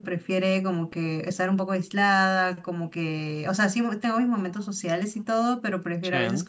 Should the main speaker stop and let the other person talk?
No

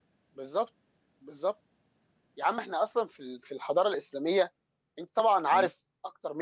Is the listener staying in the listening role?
Yes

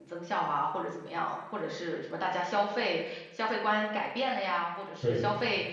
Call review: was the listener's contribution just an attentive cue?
Yes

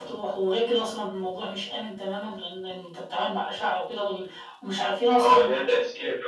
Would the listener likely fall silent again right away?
No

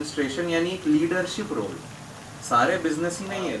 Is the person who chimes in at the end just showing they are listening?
Yes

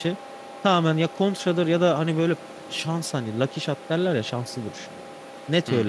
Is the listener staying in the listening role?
Yes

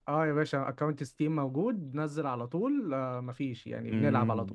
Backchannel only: No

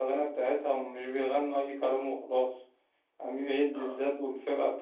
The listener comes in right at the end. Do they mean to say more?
No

